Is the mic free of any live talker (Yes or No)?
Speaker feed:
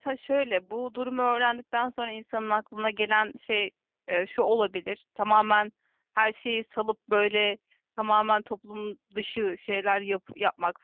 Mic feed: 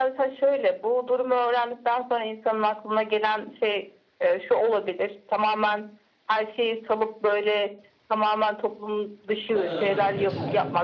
No